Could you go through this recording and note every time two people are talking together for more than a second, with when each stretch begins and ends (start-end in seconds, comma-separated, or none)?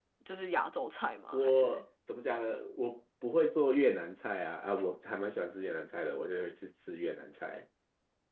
none